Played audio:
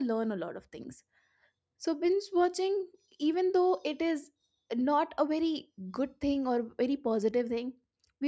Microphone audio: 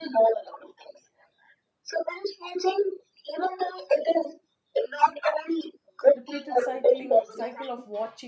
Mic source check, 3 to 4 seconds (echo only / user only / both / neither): echo only